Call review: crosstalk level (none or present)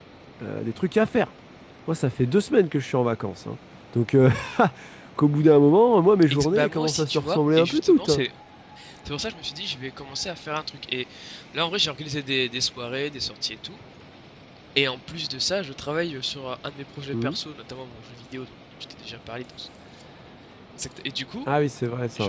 present